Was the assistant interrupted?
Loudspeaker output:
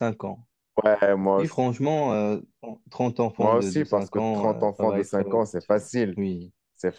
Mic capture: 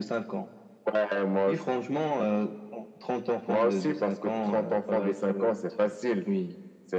No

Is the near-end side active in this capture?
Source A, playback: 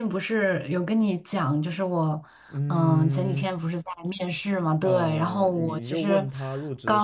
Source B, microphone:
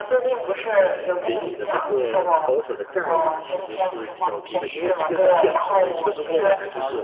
Yes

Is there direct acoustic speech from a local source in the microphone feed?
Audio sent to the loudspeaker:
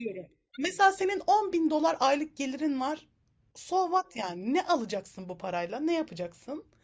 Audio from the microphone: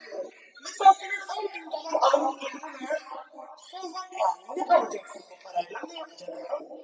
No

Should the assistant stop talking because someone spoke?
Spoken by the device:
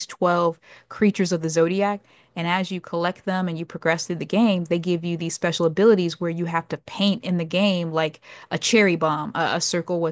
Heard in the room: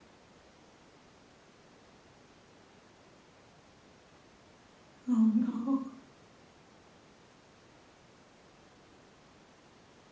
Yes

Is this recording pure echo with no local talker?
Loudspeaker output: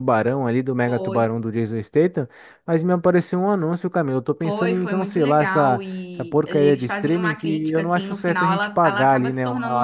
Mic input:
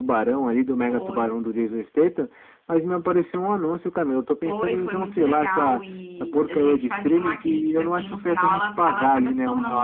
Yes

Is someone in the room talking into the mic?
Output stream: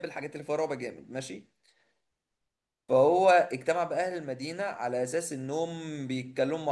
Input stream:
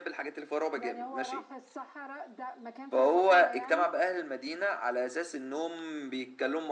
Yes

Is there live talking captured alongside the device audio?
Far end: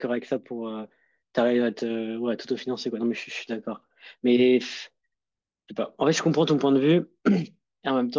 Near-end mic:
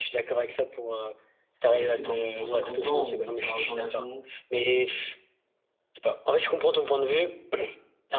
Yes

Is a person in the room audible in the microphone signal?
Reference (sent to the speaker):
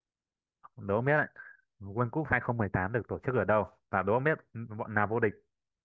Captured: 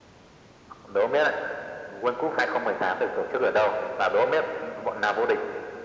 No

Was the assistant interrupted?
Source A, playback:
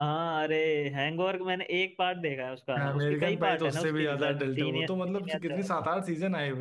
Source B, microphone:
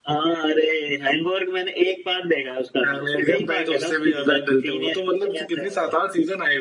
No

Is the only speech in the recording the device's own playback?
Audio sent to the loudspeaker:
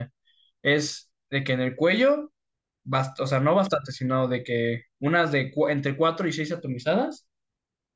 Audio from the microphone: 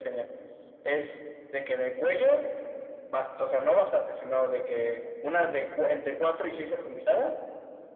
Yes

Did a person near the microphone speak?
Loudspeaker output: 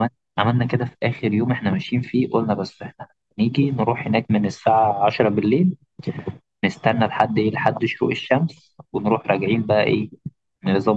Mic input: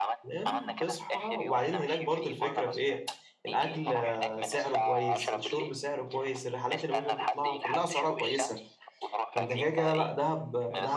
Yes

